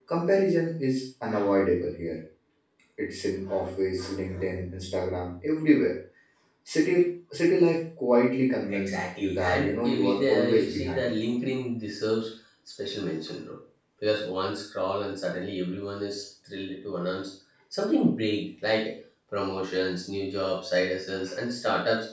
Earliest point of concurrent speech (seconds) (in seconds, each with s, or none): 8.7 s